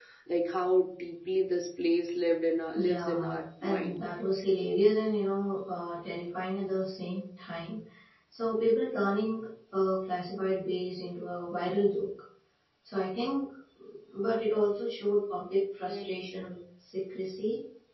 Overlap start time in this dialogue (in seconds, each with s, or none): 2.8 s